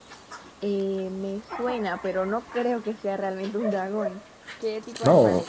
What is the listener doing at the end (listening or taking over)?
taking over